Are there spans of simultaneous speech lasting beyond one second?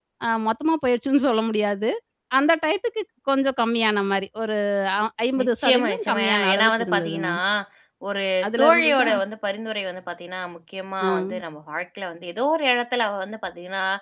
Yes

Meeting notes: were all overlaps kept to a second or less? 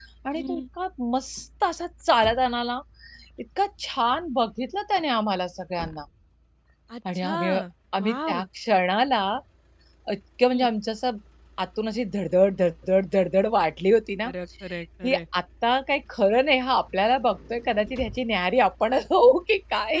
Yes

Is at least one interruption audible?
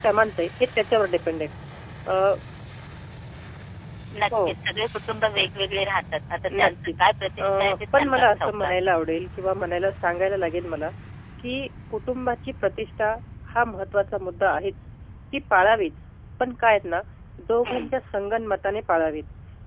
Yes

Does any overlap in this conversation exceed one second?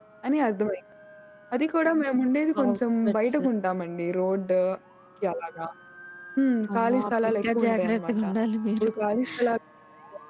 Yes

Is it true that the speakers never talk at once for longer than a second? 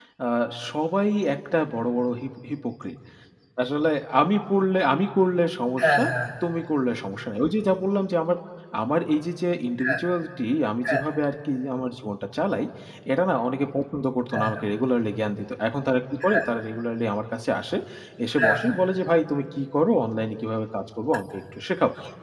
Yes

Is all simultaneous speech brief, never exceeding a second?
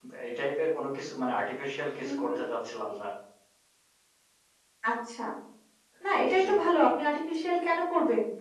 Yes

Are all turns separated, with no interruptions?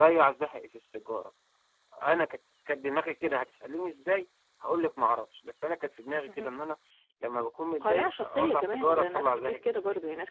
No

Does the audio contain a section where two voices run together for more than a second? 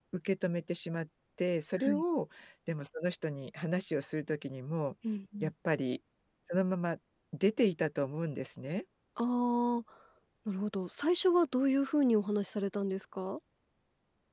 No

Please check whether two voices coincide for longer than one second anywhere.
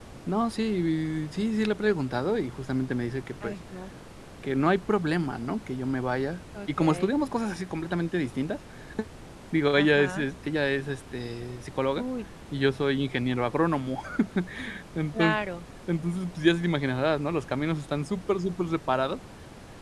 No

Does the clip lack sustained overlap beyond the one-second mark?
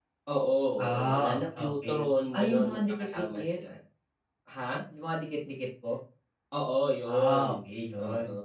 No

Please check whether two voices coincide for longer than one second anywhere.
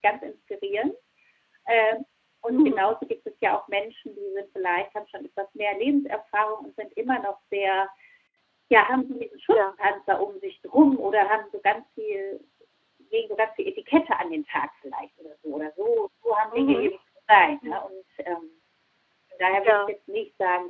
No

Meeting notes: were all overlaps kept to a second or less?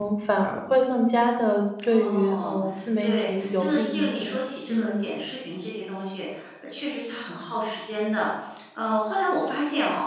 No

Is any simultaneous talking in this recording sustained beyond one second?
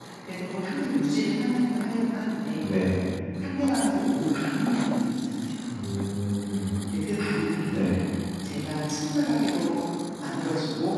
No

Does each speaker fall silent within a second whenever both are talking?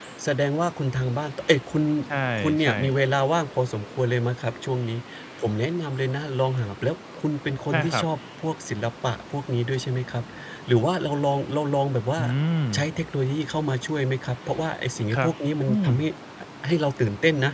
Yes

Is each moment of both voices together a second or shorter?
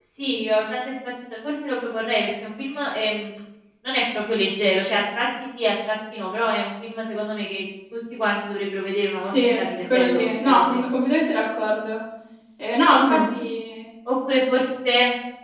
No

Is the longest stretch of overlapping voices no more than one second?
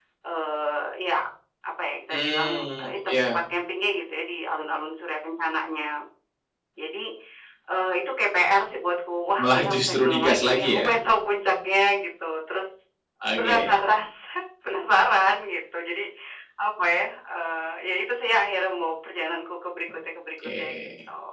No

